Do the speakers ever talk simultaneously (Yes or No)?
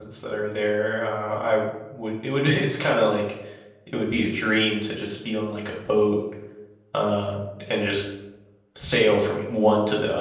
No